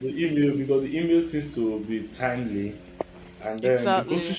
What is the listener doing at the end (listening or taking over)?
listening